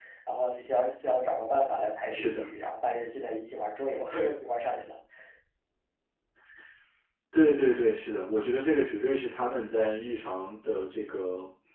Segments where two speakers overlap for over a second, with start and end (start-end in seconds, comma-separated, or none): none